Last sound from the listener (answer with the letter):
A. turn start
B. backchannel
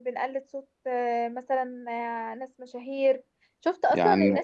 B